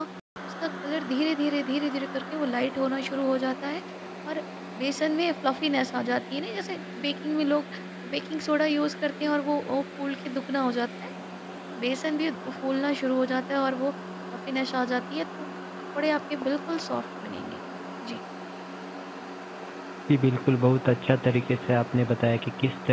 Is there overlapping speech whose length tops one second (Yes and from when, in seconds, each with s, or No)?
No